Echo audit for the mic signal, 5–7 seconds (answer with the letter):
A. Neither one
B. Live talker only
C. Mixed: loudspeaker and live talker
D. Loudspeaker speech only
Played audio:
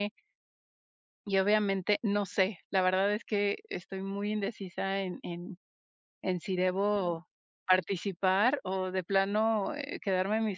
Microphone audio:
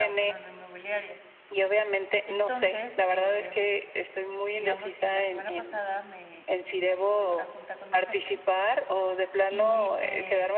C